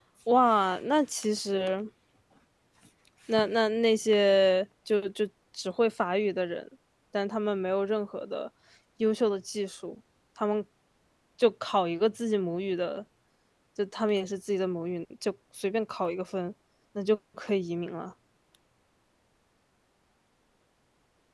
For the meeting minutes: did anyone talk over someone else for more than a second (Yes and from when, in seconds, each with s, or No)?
No